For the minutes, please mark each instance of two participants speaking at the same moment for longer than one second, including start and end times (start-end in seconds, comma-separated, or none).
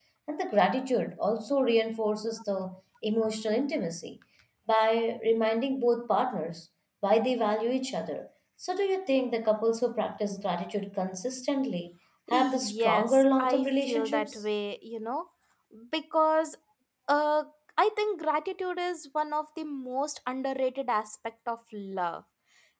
12.3-14.4